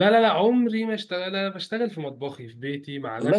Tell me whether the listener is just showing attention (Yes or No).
Yes